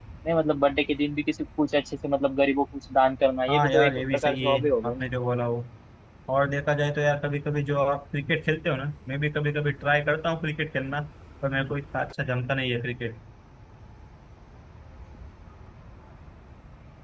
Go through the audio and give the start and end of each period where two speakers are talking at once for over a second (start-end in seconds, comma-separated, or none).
3.5-5.0